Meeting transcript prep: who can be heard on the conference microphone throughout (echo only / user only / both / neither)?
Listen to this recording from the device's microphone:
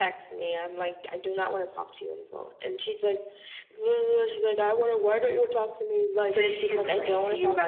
both